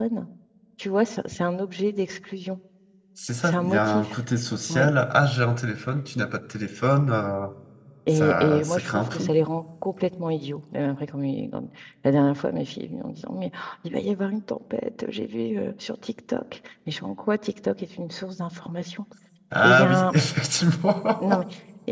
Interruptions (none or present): present